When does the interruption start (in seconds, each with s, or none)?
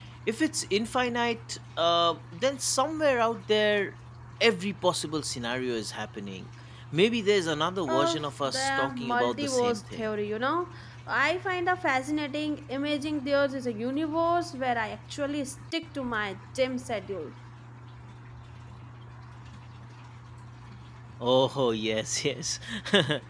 7.9 s